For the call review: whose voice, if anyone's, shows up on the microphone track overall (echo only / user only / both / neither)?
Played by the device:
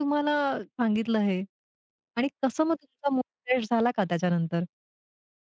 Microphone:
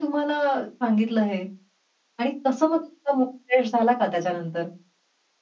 echo only